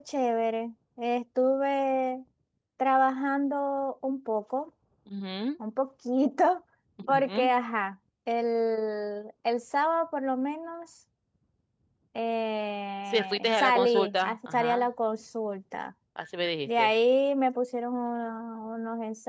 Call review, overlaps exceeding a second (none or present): present